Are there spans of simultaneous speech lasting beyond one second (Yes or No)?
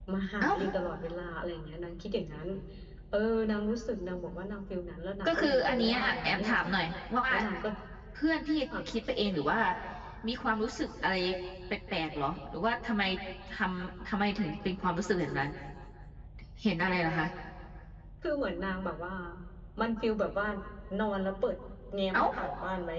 Yes